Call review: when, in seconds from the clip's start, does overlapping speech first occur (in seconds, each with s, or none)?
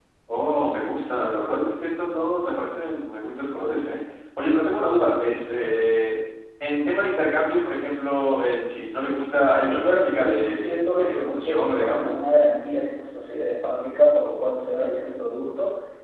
9.6 s